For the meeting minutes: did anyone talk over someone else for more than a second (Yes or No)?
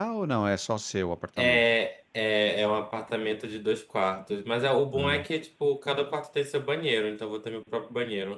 No